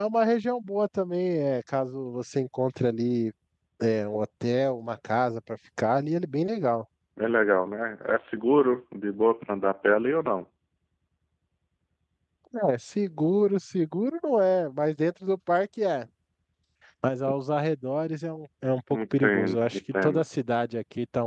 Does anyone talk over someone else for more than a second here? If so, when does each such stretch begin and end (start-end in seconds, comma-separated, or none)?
18.9-20.2